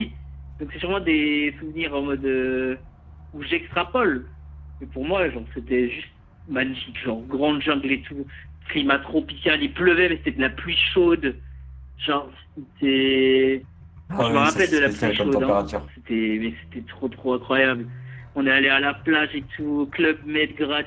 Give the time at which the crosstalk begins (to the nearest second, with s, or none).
14 s